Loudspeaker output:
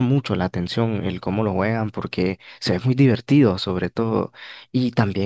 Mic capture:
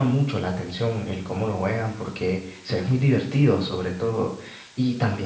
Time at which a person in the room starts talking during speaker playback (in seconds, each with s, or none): none